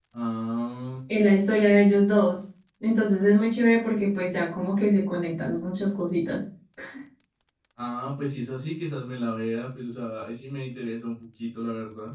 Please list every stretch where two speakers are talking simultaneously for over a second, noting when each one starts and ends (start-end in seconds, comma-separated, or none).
none